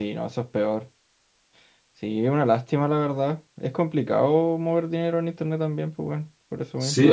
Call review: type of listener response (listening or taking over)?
taking over